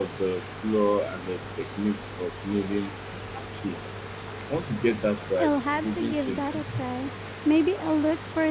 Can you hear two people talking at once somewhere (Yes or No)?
Yes